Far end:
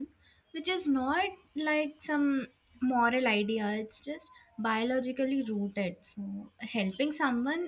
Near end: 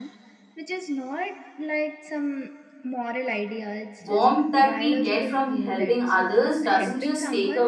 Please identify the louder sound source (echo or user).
user